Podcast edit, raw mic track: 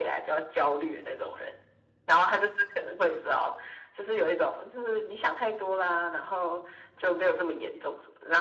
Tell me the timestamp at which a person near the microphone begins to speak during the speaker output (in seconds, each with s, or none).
none